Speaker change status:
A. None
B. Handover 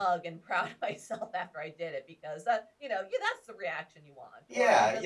B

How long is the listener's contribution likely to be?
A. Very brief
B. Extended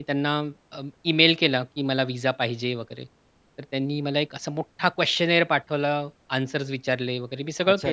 B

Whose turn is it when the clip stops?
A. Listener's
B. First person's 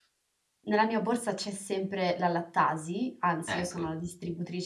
B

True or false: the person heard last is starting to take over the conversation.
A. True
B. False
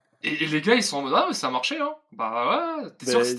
B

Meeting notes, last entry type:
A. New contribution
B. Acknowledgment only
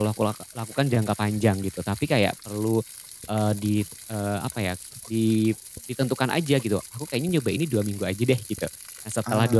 B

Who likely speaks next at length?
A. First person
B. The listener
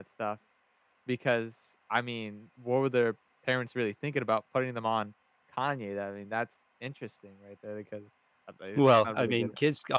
B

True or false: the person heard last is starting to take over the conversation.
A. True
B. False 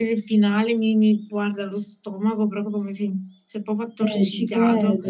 A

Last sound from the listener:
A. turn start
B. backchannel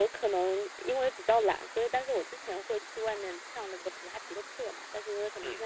B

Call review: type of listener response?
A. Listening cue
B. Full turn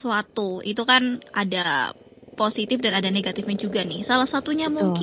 A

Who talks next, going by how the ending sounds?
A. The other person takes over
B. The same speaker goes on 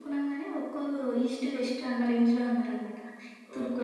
A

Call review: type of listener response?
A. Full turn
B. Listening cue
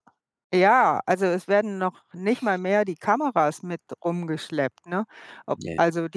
B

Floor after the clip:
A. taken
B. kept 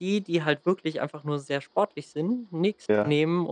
B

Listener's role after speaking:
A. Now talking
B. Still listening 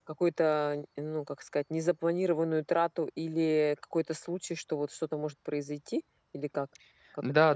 A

